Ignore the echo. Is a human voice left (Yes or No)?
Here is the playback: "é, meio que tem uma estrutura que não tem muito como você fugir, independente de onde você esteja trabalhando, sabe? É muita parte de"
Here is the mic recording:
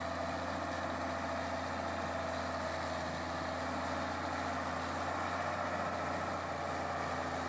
No